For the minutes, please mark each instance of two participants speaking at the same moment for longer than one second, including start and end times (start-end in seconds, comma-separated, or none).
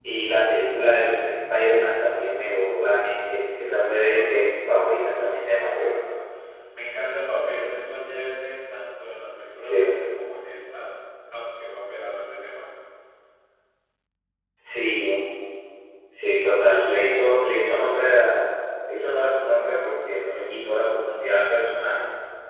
3.3-5.9